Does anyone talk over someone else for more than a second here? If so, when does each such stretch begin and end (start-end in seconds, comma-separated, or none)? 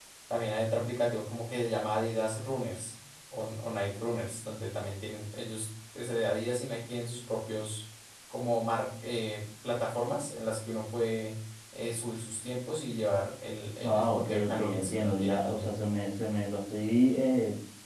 13.8-15.7